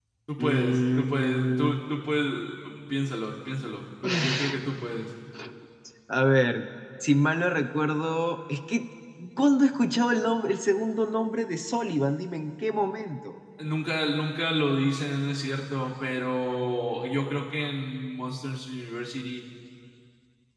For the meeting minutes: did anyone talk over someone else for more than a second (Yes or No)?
Yes